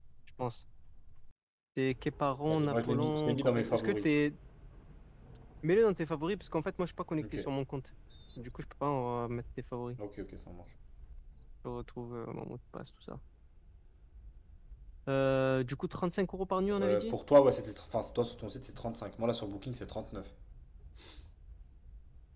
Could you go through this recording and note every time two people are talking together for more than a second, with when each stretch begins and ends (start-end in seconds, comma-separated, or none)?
2.5-4.1